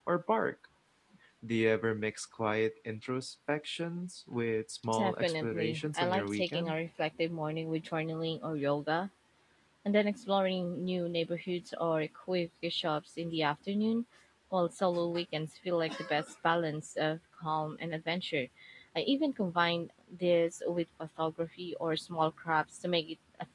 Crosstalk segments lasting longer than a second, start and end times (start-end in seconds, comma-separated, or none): 4.9-6.7